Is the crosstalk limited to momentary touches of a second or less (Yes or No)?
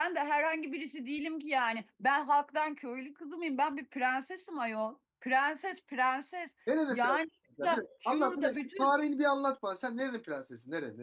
No